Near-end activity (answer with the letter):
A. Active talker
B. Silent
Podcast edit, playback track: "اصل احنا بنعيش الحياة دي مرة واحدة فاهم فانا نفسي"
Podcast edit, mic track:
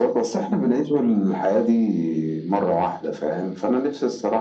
B